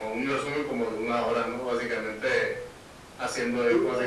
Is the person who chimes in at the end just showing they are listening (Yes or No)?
Yes